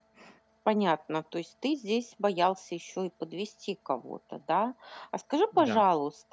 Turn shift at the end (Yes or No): No